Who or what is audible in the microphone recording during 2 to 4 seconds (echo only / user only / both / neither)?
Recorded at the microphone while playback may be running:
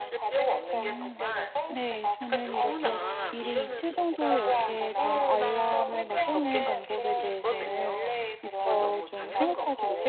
both